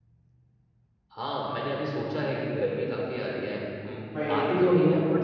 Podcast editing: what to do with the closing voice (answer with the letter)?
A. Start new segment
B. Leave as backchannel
B